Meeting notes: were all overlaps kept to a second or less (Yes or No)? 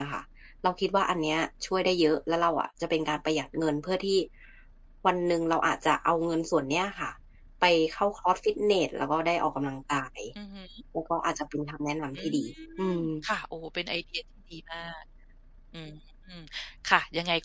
Yes